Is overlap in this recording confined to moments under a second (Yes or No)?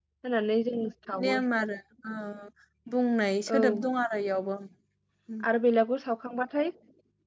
Yes